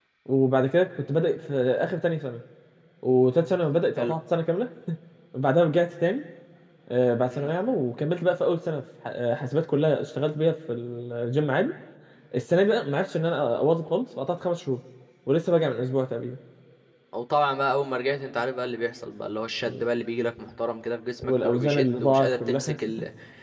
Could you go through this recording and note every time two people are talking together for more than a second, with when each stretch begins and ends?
21.2-22.7

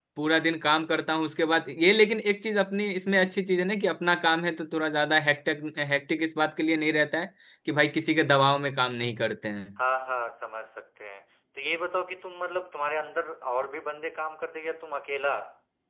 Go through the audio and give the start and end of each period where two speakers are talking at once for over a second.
none

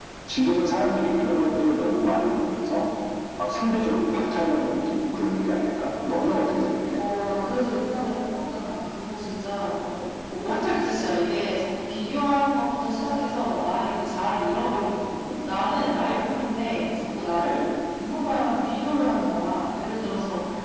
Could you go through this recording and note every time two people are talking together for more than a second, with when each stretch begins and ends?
none

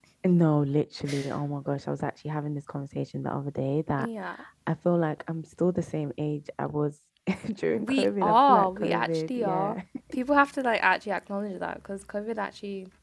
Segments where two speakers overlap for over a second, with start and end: 7.8-9.8

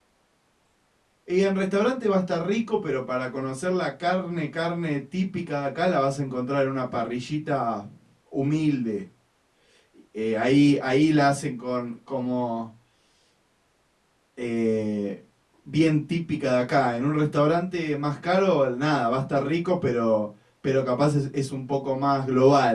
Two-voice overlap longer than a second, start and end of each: none

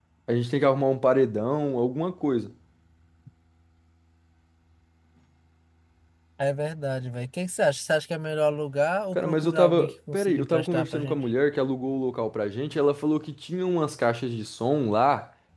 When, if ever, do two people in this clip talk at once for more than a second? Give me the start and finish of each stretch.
9.2-11.2

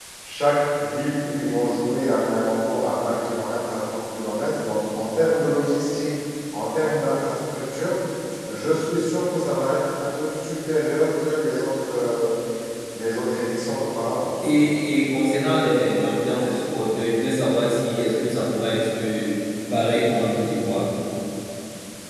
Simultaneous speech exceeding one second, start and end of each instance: none

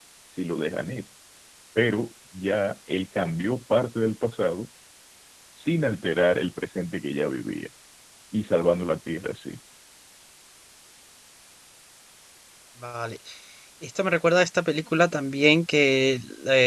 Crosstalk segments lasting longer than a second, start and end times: none

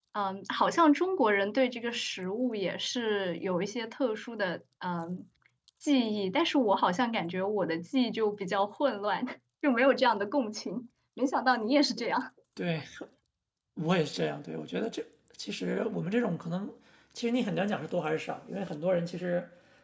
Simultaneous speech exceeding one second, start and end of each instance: none

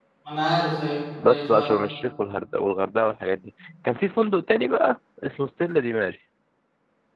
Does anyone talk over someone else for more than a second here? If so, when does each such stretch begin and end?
none

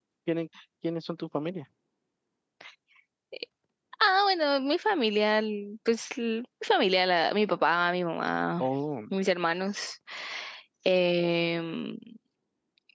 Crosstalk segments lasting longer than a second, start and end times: none

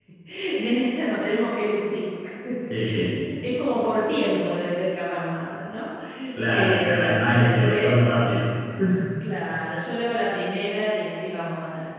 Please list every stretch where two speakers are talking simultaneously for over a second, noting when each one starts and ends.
6.5-8.0

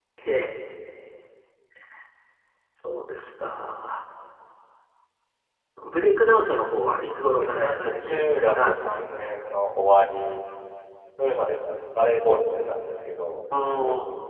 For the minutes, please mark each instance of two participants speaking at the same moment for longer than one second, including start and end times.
7.4-8.7

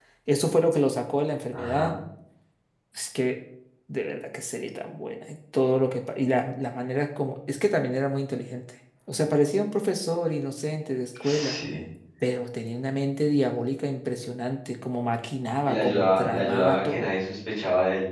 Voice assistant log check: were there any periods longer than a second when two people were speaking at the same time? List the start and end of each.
15.7-17.1

